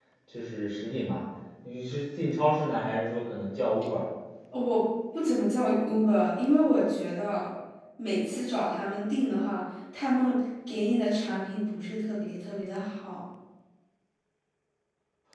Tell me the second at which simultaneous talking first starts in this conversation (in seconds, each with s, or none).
none